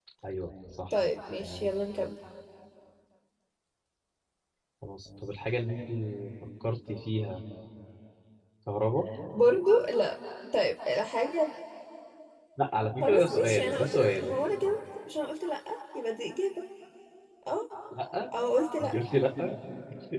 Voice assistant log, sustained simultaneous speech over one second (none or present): present